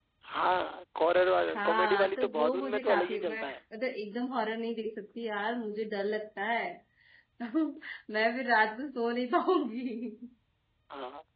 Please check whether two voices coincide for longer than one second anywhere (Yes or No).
Yes